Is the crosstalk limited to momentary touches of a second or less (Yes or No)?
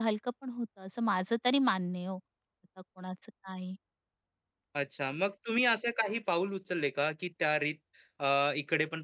Yes